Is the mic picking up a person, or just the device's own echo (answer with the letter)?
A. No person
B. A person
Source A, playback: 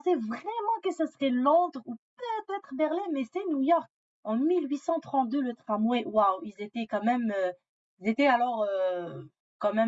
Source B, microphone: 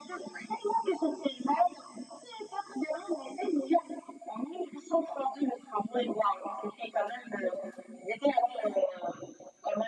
A